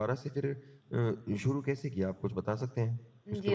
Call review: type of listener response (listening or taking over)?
taking over